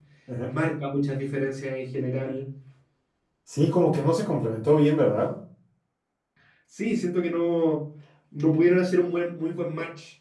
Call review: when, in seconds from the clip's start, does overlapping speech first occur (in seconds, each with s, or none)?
none